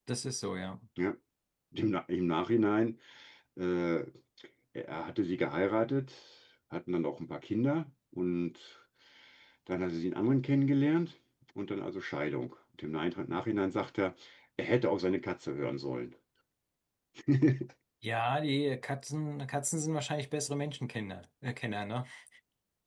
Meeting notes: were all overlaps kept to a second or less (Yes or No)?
Yes